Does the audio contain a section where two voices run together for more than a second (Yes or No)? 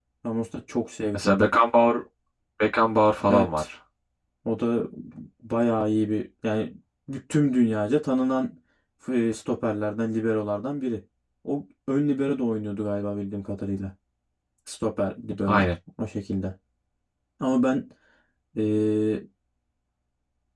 No